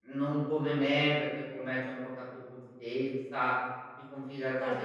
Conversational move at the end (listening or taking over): taking over